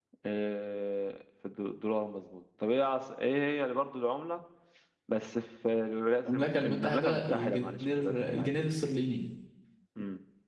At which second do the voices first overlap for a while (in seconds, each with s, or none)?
6.2 s